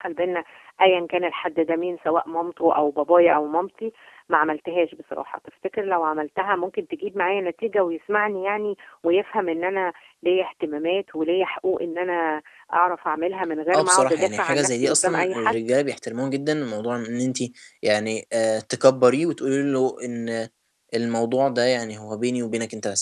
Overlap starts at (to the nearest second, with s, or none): 14 s